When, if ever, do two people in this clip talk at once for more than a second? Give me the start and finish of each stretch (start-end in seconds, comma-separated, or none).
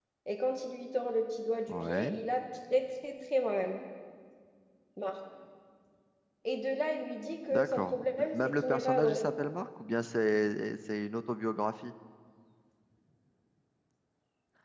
7.5-9.2